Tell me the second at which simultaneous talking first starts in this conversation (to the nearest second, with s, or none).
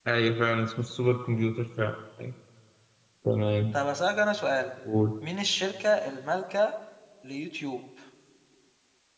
none